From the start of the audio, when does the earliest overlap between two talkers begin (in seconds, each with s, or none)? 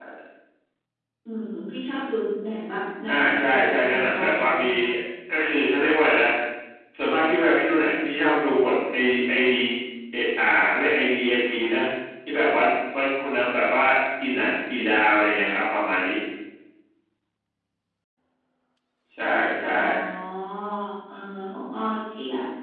3.1 s